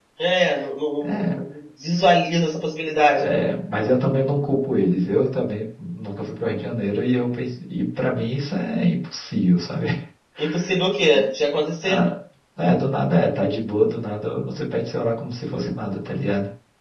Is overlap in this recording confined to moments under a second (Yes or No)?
Yes